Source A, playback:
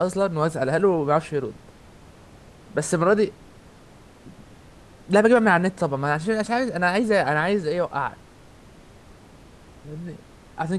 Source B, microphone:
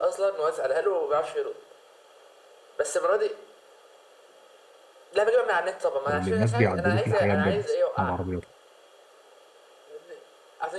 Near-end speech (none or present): present